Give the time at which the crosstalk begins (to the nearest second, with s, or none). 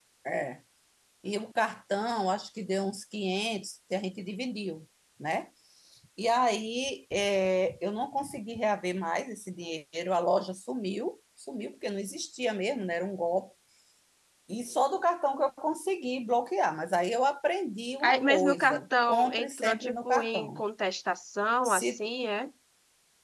18 s